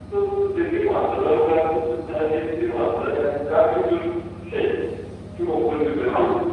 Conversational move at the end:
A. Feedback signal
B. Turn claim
B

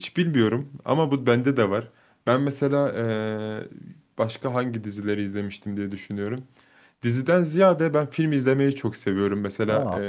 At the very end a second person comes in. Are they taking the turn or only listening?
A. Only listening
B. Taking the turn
A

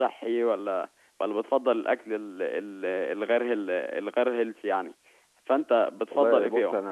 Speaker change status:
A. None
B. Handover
B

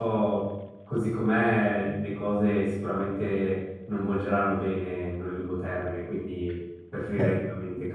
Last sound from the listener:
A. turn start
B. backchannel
B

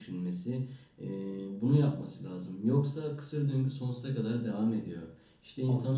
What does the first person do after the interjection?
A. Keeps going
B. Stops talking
A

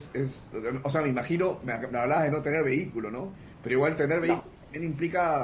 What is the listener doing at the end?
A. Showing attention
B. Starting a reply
A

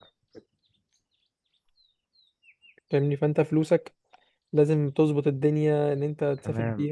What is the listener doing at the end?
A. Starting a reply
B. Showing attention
A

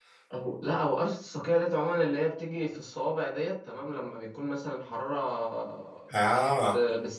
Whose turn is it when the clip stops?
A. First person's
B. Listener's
A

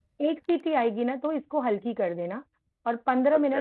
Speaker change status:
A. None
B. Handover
A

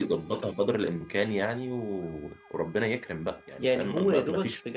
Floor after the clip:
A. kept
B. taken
B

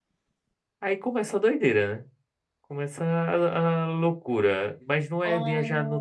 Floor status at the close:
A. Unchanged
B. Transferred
A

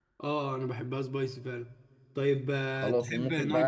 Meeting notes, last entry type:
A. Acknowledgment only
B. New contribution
B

